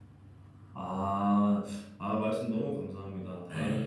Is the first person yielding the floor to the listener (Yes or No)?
No